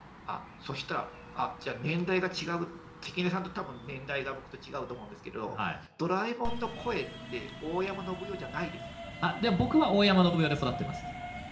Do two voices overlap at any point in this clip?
No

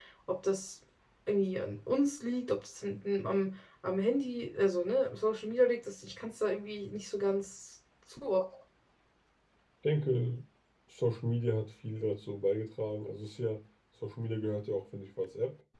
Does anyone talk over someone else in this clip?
No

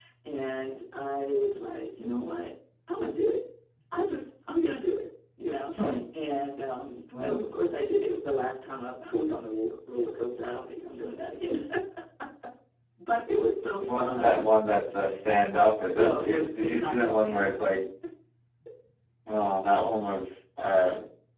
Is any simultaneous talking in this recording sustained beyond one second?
Yes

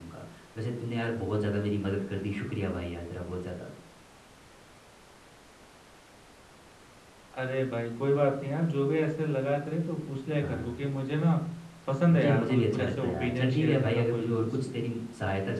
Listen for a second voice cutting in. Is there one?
Yes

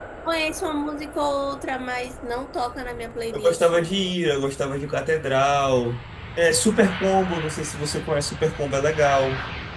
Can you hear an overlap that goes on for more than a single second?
No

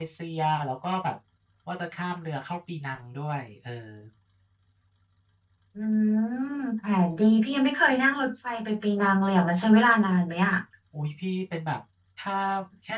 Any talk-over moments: No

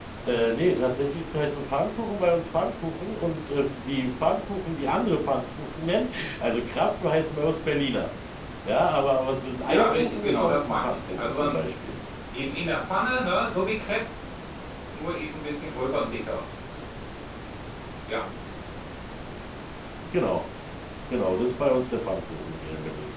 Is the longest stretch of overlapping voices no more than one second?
No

